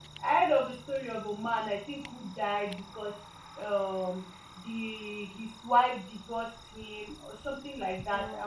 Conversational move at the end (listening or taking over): listening